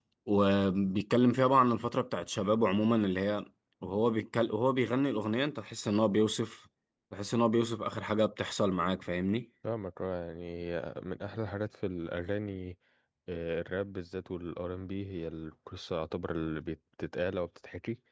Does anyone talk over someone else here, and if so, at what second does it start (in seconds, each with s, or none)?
none